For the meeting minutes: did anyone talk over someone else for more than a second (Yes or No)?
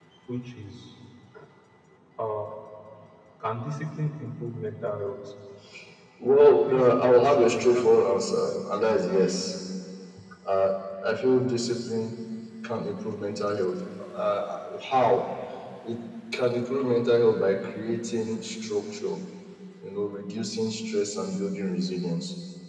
Yes